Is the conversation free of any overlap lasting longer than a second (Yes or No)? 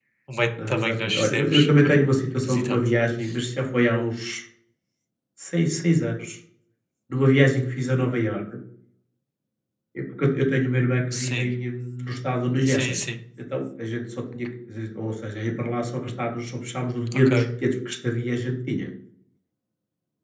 No